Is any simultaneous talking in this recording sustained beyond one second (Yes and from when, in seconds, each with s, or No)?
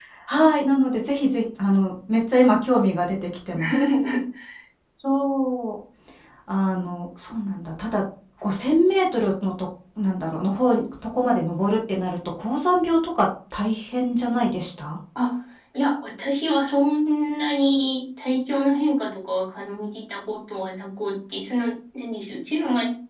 No